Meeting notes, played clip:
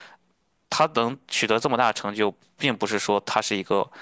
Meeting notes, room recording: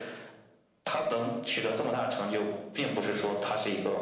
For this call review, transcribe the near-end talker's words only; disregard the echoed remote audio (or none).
none